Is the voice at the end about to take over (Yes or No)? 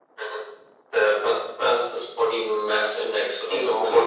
Yes